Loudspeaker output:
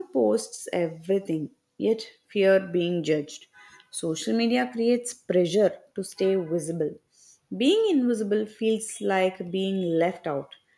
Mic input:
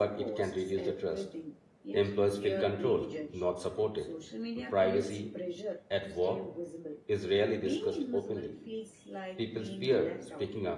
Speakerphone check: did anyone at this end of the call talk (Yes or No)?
Yes